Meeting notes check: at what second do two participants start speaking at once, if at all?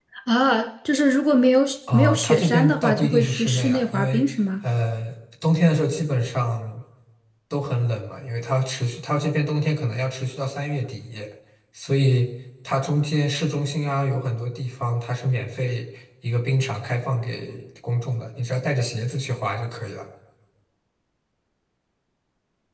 2 s

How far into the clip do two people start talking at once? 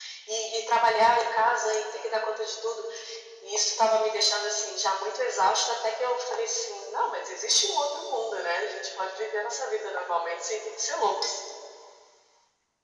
none

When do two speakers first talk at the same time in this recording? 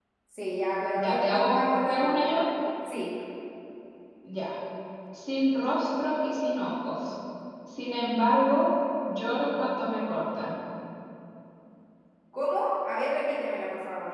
1 s

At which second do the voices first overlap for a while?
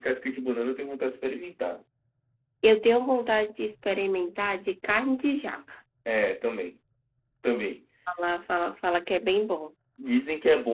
none

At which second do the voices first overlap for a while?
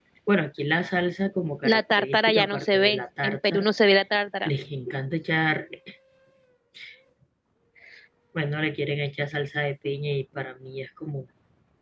2 s

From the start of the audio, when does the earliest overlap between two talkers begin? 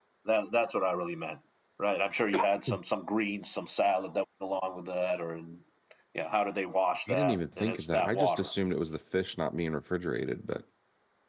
7 s

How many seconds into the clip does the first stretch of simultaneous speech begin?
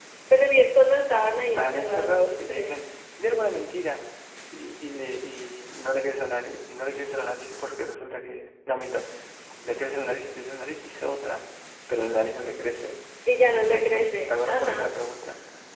1 s

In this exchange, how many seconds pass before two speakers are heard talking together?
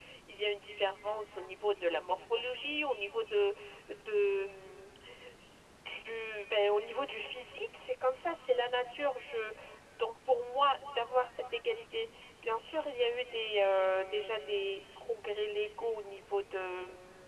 none

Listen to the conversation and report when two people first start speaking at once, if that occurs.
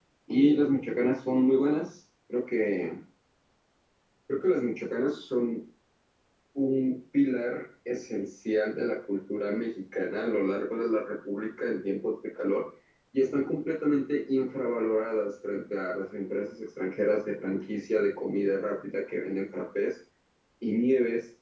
none

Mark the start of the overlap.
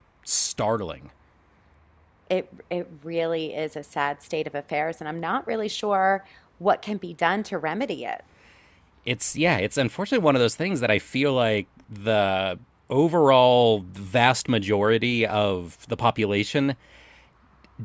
none

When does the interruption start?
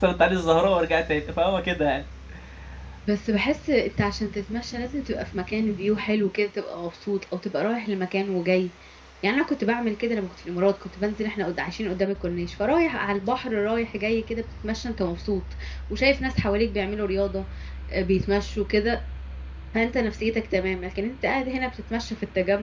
none

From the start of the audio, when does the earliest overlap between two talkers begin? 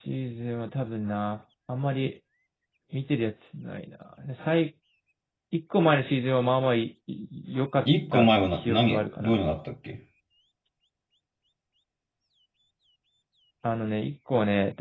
8 s

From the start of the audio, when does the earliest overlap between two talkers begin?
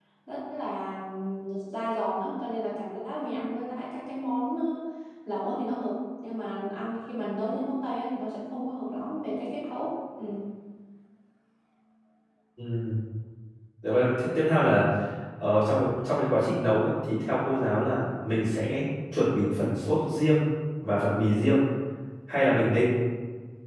none

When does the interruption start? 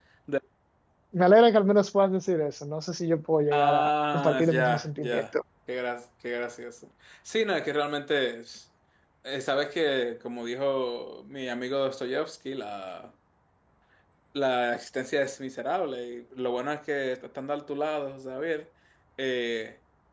4 s

